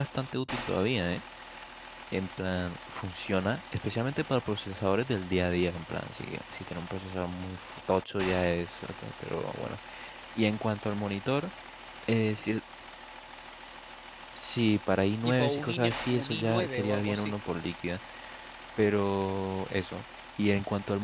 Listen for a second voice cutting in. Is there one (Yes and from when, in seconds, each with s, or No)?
Yes, from 15.2 s